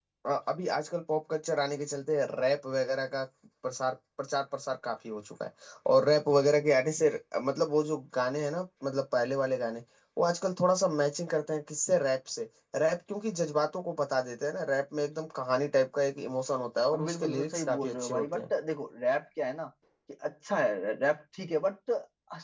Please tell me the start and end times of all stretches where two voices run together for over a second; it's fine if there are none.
16.9-18.4

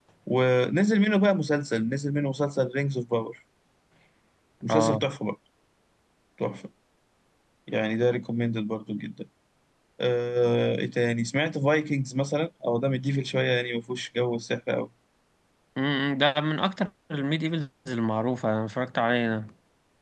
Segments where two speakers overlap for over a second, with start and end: none

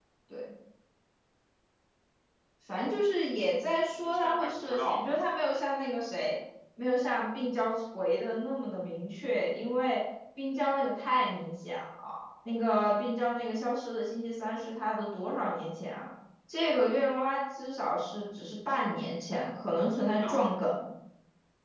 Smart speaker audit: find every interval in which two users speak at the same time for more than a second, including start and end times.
4.0-5.5

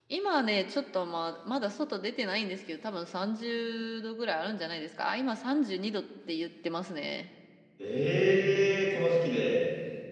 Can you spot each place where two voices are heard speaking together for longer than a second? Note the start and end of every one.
none

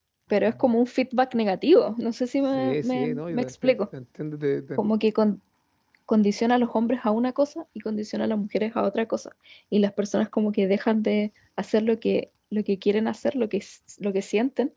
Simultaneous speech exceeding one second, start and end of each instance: 2.5-3.8

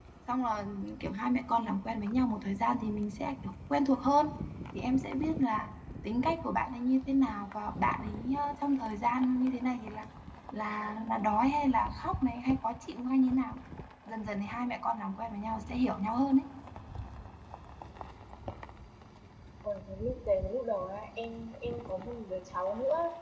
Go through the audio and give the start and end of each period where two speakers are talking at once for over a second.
none

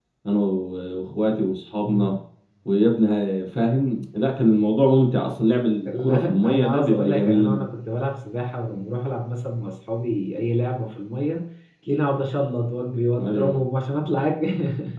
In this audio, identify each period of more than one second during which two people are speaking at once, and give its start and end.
6.0-7.6

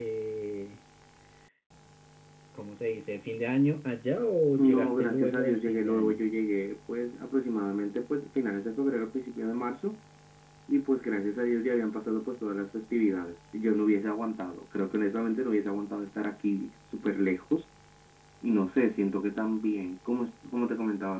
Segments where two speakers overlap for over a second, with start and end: 4.6-6.2

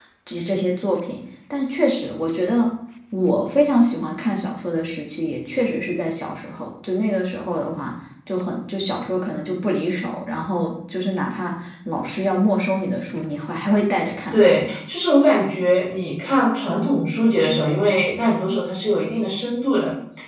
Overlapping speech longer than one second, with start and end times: none

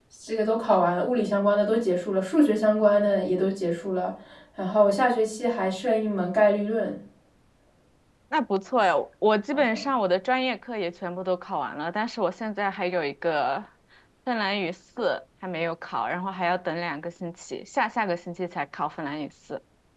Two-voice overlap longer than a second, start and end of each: none

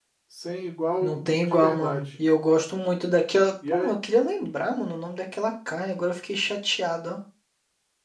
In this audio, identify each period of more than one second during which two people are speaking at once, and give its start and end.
1.0-2.2

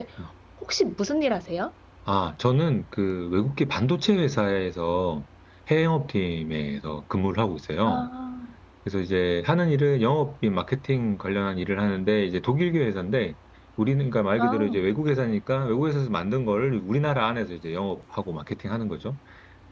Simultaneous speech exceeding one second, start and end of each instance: none

